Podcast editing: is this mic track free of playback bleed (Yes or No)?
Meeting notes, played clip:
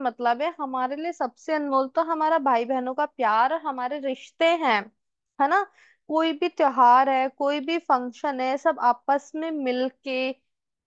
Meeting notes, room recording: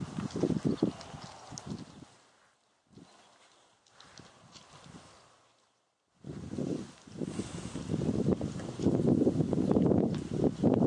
Yes